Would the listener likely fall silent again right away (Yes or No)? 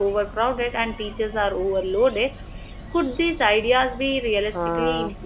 No